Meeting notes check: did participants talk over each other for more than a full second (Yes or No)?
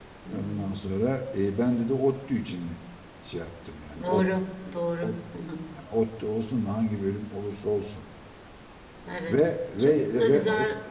Yes